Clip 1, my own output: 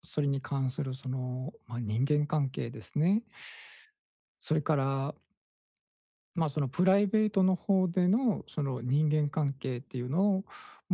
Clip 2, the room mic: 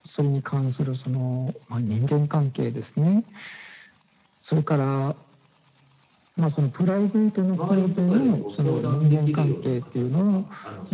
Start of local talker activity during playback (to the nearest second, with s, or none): 8 s